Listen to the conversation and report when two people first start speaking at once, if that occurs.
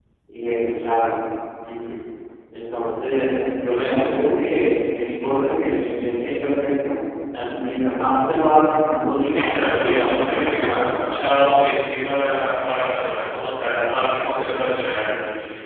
9.2 s

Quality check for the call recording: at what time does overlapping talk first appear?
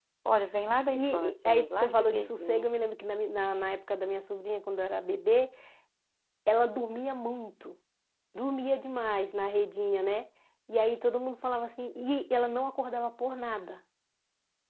0.9 s

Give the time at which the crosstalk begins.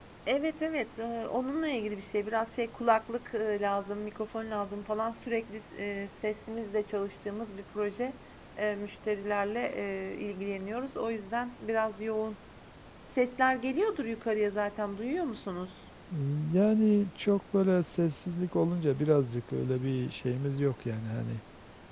none

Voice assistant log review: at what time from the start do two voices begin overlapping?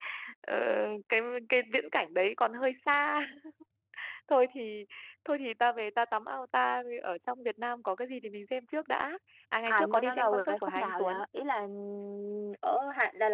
9.7 s

